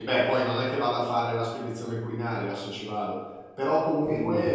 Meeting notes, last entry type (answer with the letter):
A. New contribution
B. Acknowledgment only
B